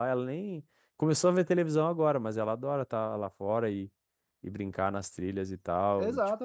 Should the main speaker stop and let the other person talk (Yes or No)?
Yes